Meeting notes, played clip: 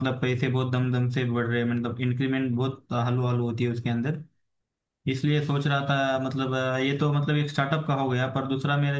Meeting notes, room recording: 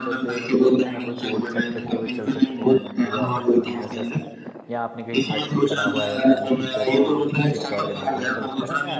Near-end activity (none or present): present